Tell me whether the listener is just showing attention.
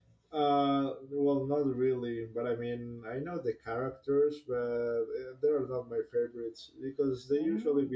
Yes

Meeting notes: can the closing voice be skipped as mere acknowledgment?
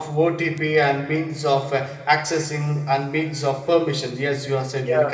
No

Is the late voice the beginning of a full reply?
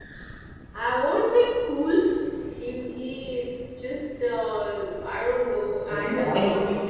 Yes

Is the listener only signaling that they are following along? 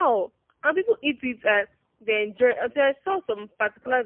No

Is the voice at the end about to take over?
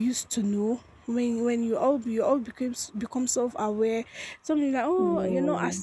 No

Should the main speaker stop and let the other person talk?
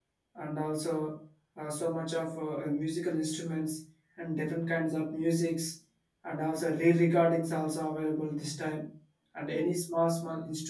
No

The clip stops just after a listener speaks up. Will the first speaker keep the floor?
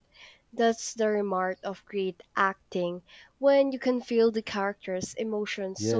No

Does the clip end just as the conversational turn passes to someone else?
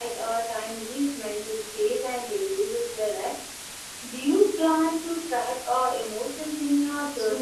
Yes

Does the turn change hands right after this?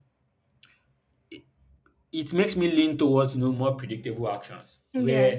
No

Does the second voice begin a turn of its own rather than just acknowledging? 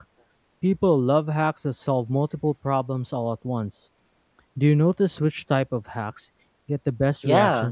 Yes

